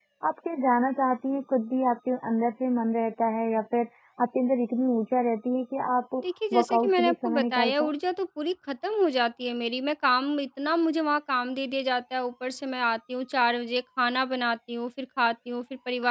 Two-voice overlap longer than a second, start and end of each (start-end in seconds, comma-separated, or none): 6.5-7.9